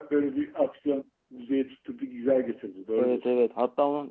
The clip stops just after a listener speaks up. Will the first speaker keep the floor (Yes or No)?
No